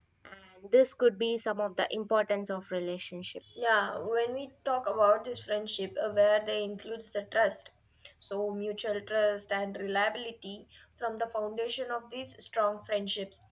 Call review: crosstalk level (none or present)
none